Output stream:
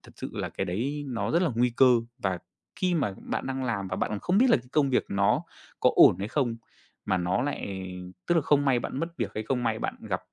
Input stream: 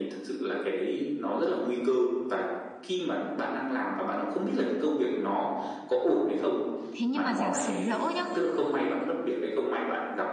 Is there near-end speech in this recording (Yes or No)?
Yes